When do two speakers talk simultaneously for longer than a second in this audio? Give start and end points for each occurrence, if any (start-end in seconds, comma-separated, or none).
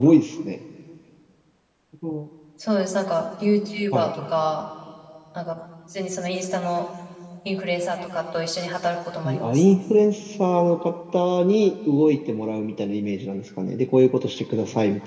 none